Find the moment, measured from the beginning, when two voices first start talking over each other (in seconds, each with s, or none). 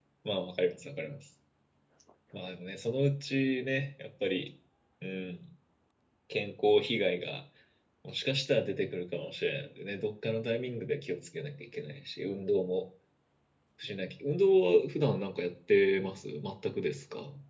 none